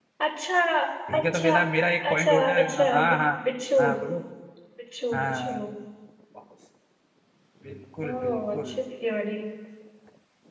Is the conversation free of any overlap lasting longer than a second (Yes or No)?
No